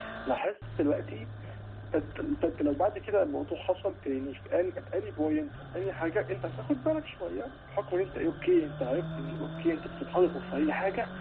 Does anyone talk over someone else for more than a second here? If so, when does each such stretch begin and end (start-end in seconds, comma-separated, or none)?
none